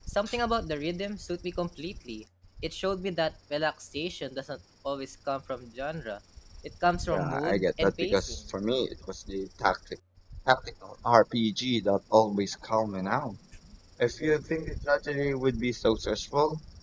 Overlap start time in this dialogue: 7.1 s

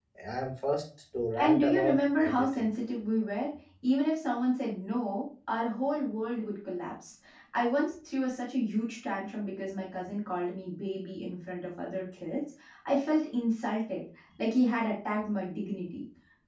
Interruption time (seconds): 1.4 s

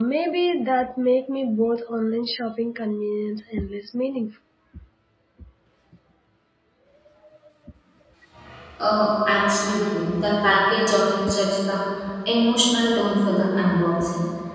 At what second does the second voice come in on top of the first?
none

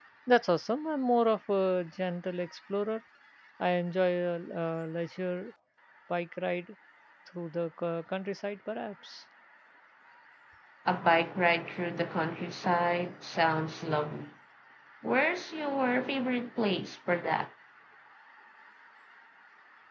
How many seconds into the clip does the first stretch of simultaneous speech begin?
none

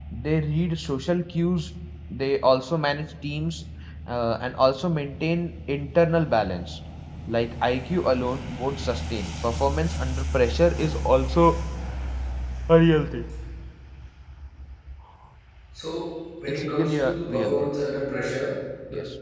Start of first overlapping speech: 16.5 s

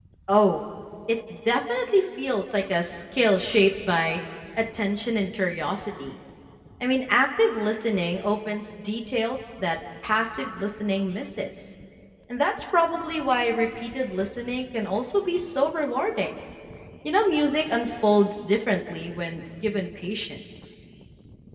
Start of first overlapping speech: none

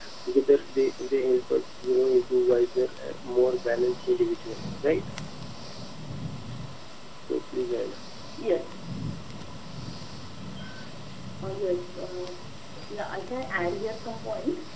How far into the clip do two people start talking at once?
none

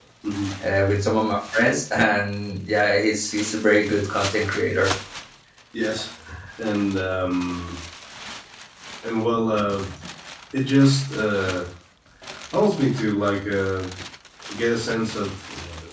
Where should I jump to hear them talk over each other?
none

